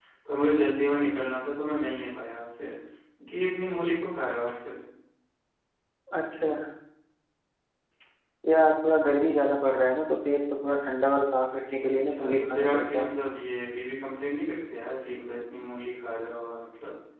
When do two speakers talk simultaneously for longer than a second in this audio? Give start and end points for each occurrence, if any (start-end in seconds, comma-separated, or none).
11.8-13.1